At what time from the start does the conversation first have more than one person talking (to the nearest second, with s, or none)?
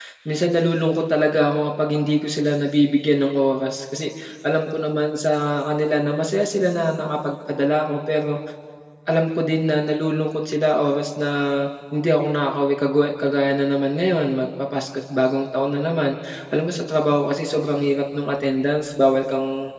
none